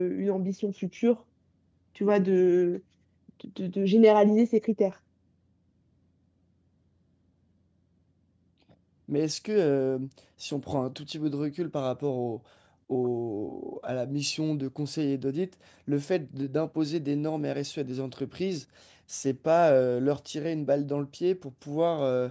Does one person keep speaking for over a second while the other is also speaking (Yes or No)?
No